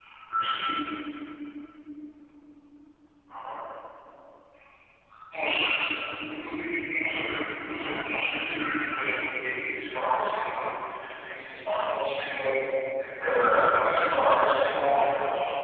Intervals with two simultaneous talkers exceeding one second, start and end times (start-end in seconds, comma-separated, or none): 13.5-15.0